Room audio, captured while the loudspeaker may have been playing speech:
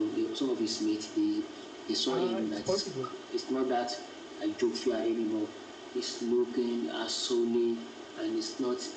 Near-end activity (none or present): present